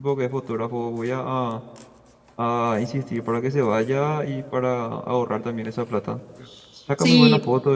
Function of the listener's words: listening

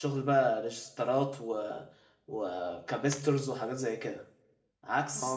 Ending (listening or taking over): taking over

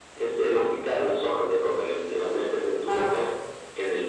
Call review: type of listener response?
listening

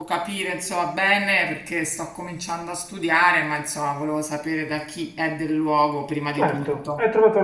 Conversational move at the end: taking over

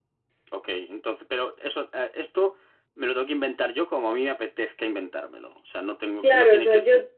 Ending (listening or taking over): taking over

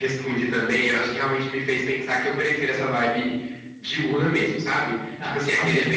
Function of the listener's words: listening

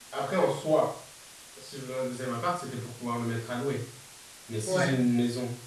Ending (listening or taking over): listening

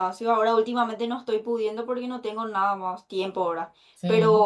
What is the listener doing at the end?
listening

